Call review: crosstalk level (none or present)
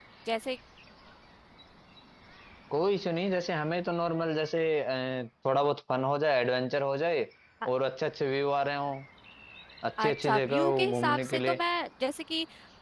present